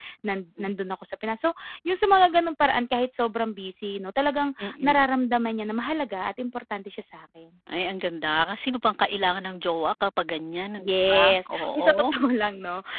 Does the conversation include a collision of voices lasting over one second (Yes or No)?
Yes